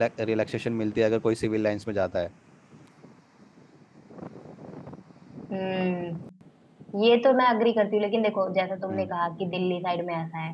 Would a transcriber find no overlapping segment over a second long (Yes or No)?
Yes